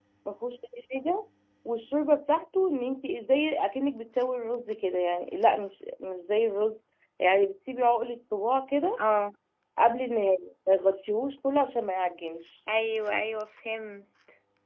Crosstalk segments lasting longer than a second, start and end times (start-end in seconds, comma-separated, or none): none